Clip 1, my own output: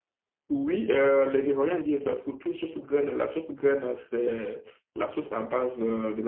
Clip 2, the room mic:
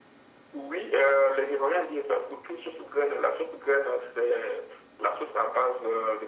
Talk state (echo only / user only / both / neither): echo only